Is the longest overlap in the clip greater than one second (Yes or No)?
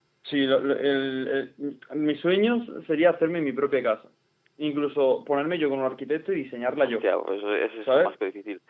No